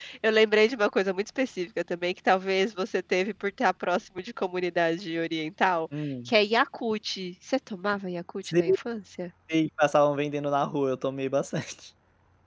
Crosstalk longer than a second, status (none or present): none